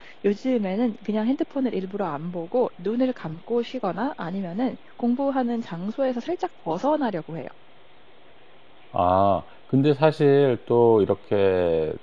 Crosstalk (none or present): none